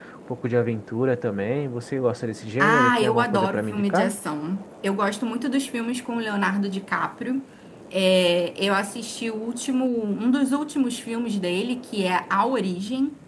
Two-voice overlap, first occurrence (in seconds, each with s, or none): 2.6 s